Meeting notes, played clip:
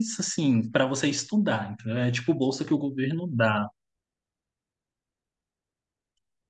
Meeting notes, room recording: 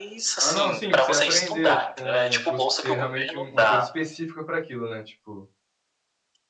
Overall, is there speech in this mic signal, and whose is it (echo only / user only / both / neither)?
both